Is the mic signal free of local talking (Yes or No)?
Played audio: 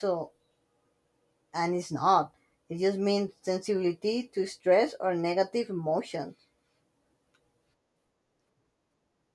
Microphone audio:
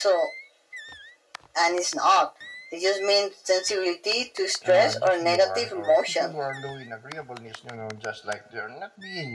No